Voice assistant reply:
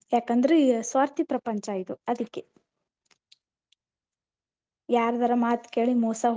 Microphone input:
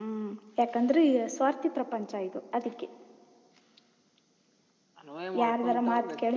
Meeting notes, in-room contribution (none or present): present